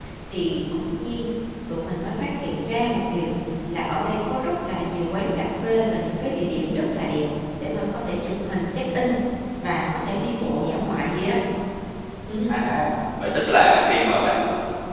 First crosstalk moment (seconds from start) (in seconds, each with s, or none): none